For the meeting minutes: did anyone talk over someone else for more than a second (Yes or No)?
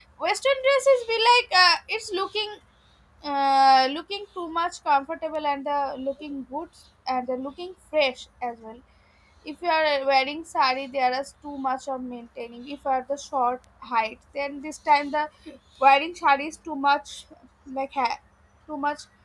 No